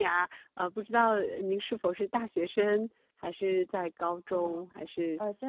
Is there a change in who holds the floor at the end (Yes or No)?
Yes